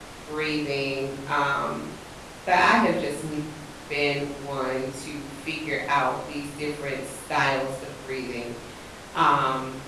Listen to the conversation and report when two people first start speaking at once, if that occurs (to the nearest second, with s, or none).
none